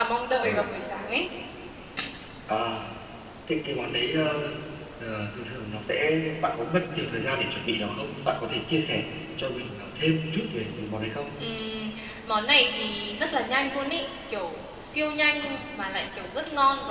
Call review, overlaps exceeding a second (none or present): none